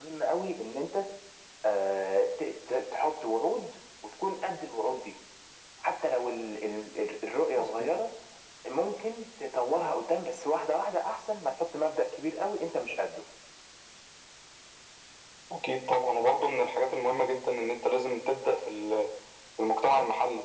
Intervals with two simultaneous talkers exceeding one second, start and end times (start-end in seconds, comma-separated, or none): none